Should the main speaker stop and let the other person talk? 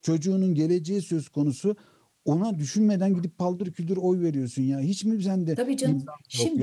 Yes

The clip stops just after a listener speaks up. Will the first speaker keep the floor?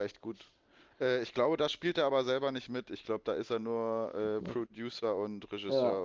No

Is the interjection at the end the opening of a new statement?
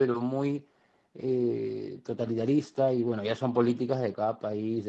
No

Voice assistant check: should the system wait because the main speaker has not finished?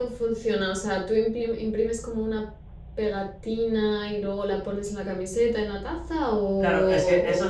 No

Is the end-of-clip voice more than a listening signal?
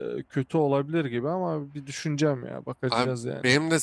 Yes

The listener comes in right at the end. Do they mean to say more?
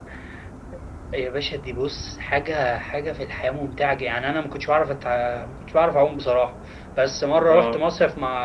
No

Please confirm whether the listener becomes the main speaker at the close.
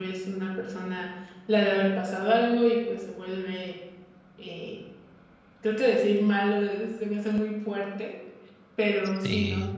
No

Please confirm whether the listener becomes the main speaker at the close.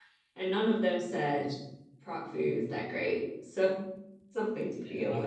Yes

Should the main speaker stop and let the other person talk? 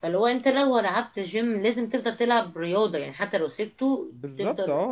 Yes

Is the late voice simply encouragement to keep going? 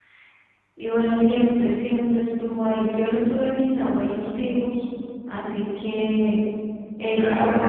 No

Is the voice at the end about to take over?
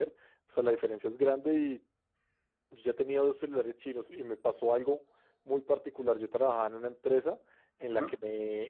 No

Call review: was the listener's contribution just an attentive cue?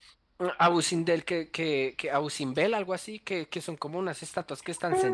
No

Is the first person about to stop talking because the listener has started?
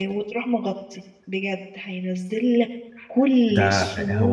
Yes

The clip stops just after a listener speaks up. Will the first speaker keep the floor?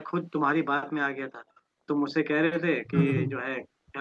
Yes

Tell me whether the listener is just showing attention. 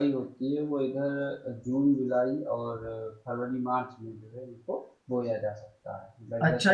No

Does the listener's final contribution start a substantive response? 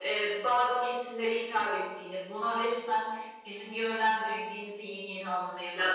Yes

